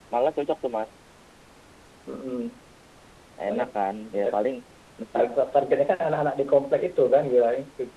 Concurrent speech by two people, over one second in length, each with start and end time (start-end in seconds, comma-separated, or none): none